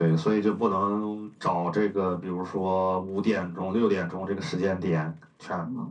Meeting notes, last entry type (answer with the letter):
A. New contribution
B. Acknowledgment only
B